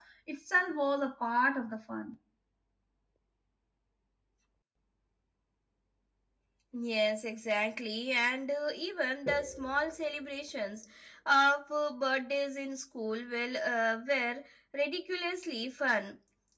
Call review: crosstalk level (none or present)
none